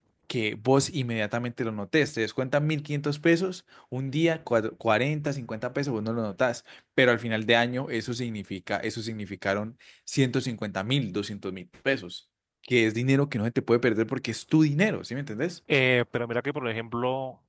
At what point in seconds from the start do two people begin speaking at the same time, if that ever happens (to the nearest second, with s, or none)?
none